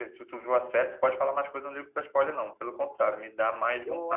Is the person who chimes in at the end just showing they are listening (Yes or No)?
No